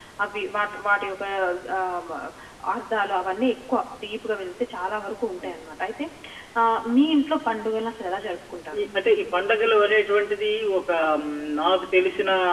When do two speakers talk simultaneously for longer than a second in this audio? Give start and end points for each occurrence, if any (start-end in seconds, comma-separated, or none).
none